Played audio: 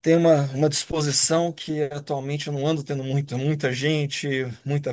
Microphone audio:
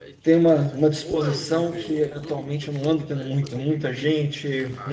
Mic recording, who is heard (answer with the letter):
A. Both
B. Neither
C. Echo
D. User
A